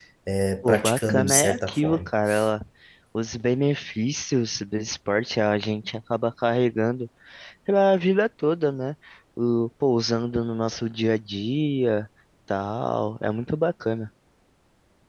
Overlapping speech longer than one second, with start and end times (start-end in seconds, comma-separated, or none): 0.6-2.1